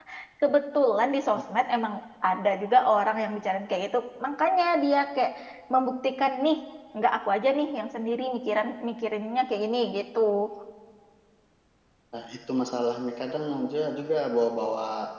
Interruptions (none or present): none